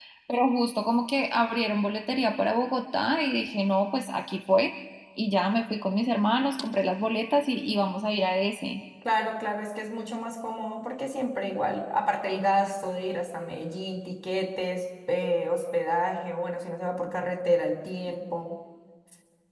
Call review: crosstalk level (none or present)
none